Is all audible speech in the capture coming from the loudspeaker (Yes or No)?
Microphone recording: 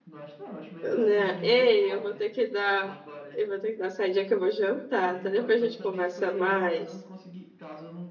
No